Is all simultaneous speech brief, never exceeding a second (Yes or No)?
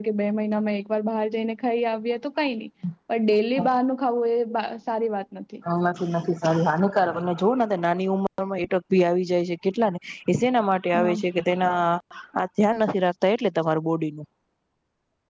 Yes